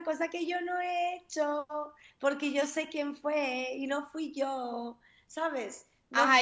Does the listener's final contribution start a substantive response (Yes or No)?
Yes